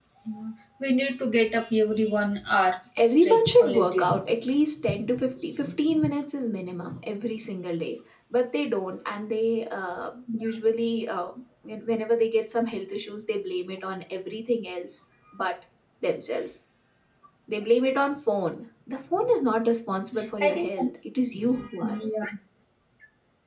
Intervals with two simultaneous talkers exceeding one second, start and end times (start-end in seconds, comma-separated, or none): 3.0-4.2